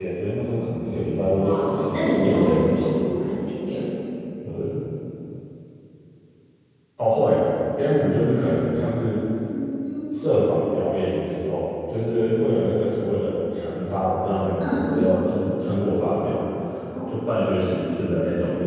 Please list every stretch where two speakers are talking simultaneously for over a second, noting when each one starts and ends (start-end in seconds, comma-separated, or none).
1.4-3.1